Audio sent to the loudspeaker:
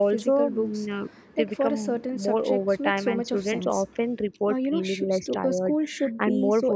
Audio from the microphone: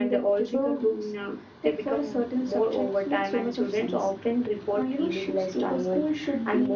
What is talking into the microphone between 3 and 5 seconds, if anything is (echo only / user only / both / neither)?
echo only